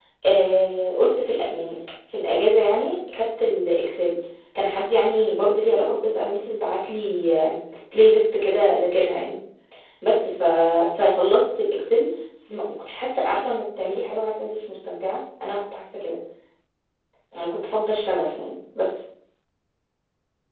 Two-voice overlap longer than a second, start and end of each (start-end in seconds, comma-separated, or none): none